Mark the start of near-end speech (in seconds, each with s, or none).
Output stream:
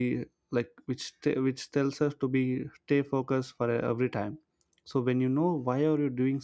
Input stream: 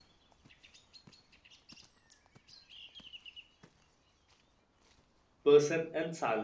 5.4 s